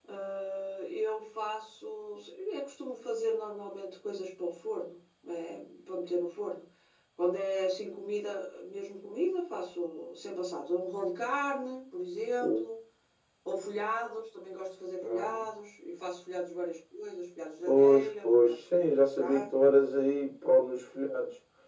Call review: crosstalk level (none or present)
present